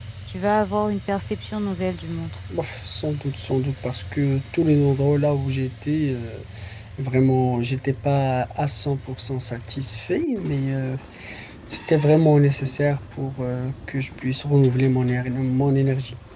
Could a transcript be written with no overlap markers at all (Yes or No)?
Yes